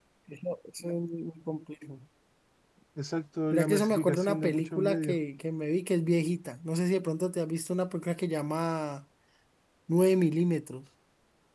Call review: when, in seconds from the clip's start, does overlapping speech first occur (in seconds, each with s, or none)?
3.5 s